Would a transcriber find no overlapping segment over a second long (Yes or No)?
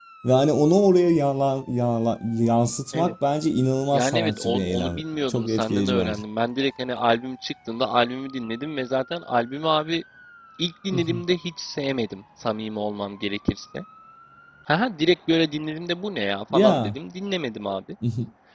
No